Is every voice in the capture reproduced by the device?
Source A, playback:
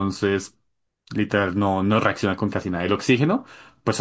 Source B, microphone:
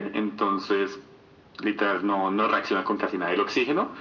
Yes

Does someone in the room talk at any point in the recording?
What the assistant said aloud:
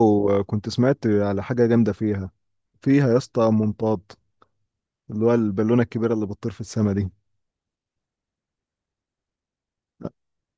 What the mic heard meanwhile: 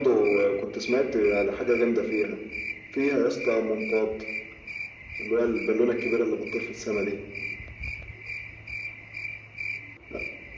No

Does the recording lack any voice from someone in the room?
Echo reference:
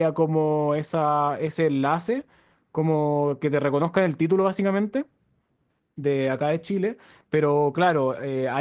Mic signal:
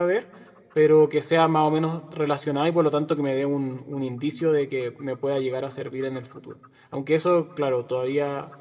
No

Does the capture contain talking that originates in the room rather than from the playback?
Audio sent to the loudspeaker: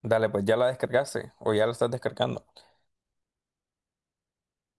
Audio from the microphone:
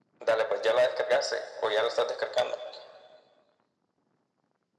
No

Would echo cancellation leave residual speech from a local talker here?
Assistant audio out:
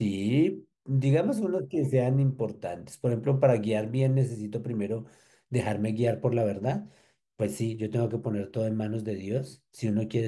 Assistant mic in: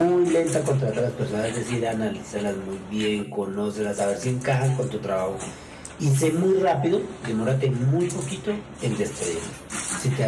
Yes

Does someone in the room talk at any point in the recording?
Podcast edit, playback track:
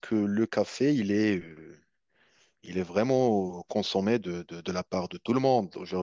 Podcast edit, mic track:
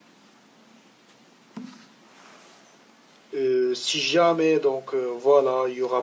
Yes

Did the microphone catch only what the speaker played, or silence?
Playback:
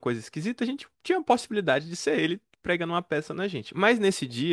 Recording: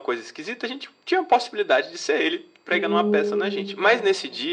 No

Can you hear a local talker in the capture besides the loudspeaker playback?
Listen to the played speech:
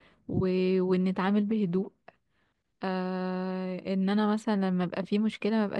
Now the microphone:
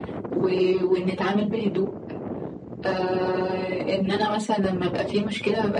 No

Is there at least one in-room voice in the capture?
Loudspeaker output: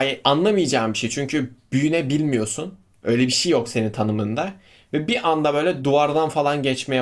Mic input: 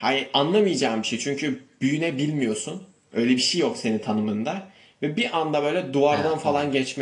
Yes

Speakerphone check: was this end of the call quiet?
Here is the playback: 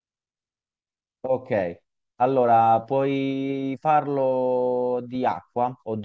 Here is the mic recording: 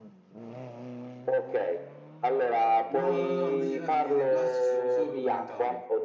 No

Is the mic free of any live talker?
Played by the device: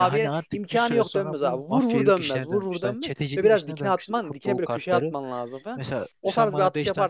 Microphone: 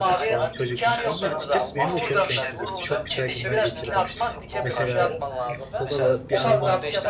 No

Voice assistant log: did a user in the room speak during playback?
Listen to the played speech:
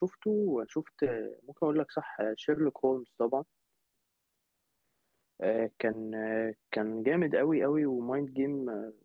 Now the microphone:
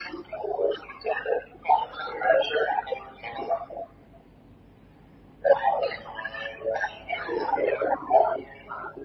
No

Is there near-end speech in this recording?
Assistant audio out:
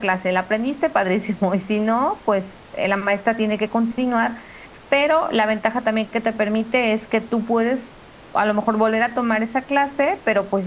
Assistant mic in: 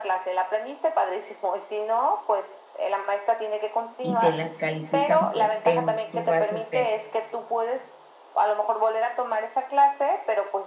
Yes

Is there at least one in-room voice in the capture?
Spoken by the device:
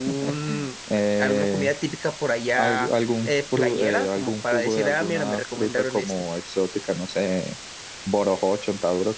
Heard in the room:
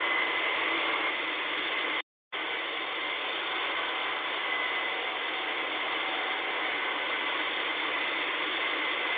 No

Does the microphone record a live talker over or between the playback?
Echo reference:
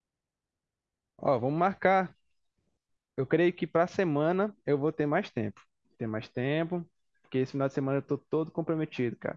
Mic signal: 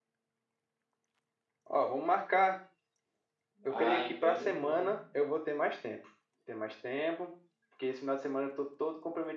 Yes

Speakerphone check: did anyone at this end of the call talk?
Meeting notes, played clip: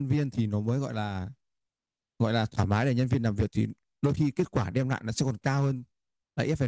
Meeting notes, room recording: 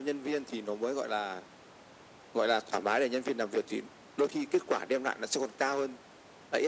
No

